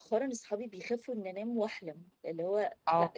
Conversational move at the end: taking over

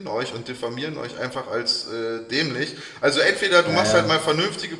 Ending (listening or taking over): listening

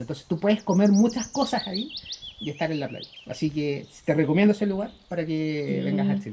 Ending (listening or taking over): taking over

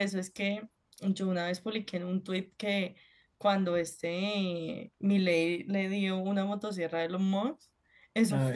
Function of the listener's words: listening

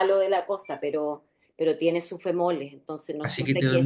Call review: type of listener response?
taking over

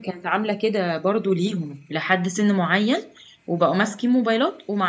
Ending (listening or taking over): listening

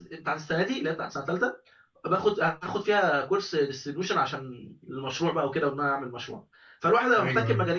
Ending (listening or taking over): listening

